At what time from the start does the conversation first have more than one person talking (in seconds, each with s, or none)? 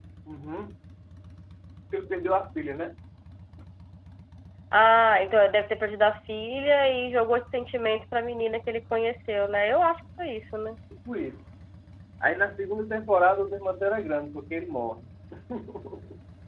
none